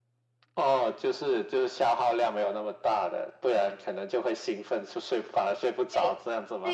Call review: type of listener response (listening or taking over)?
taking over